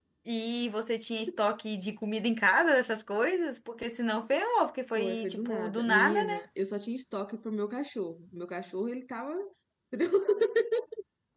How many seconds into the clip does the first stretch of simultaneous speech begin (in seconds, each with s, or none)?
5.0 s